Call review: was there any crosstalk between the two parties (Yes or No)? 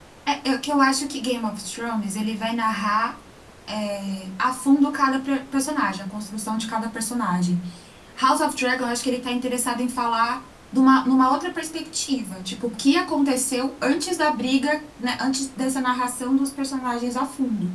No